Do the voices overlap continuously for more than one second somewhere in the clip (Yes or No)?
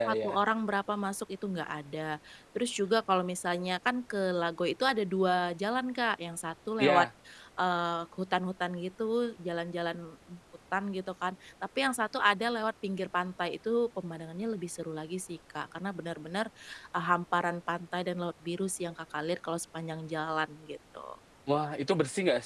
No